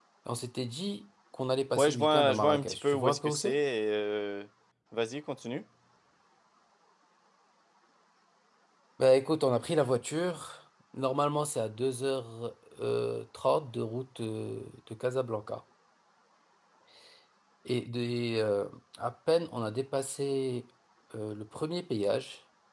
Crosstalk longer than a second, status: present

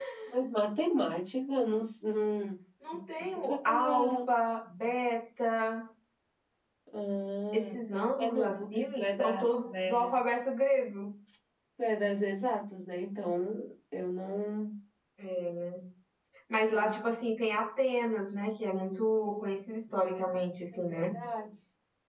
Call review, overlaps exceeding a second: present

